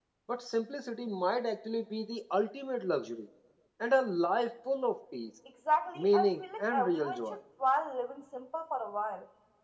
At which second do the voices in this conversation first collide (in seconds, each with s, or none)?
6.0 s